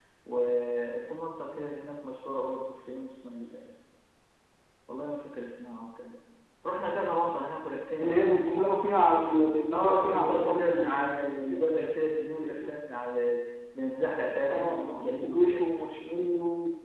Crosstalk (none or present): present